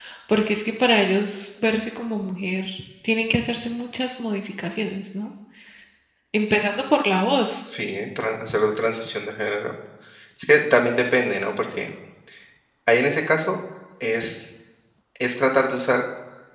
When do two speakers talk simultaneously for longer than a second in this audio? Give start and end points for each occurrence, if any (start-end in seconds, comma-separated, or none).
none